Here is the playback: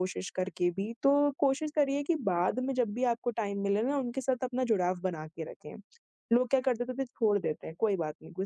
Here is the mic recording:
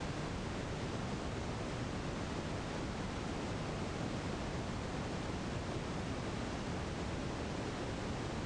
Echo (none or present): none